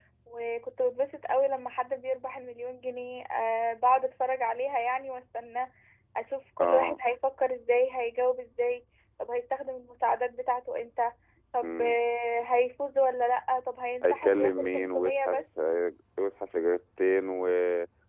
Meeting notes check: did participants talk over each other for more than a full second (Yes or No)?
Yes